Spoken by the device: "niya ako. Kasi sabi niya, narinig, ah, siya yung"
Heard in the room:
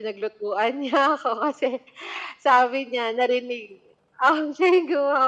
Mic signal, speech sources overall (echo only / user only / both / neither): echo only